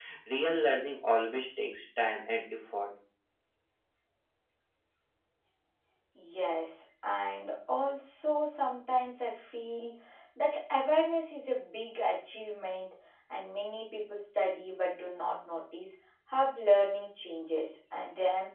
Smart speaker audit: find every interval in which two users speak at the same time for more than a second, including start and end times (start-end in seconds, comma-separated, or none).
none